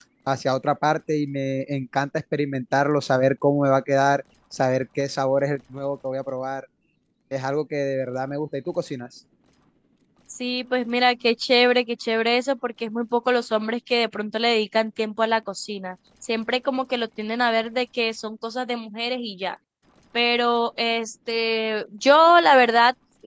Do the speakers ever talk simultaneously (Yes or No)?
No